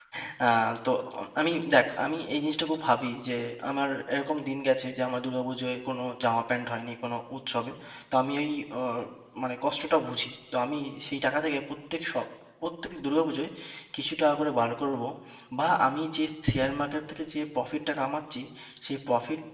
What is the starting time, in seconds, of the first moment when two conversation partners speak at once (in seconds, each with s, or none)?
none